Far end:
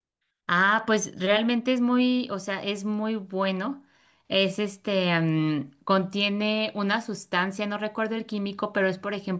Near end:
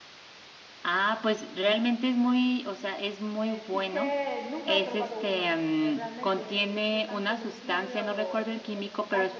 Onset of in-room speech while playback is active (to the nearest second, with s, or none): 3 s